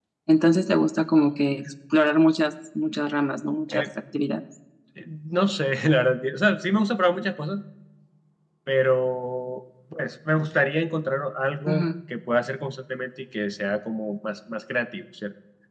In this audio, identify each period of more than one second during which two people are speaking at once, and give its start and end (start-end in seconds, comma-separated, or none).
none